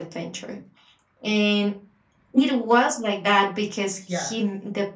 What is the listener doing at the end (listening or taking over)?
listening